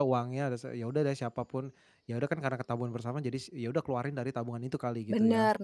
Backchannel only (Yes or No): No